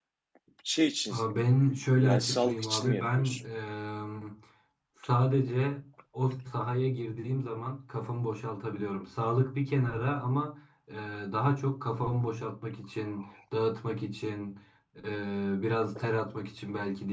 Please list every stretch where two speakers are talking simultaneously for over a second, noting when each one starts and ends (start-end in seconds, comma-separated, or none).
2.0-3.4